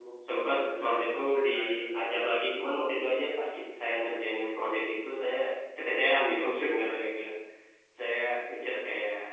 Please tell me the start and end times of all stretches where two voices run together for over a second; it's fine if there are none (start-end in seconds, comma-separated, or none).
0.5-2.0